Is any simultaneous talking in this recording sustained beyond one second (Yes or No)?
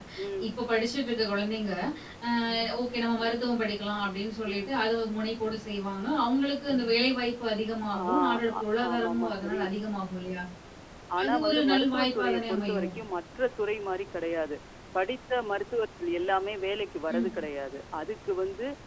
Yes